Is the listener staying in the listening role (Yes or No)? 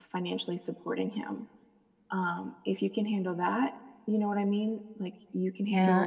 No